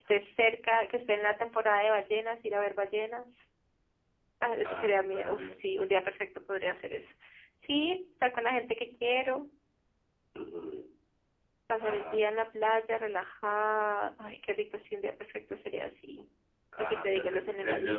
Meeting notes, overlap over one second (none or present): present